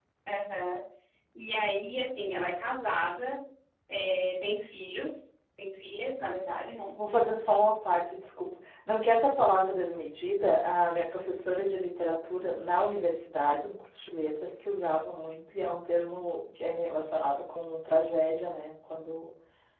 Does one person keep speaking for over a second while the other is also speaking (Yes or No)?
No